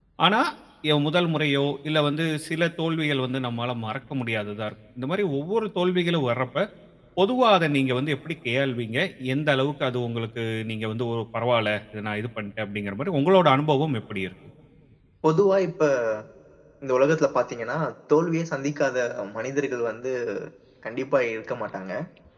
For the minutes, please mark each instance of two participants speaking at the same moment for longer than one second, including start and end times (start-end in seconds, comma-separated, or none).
none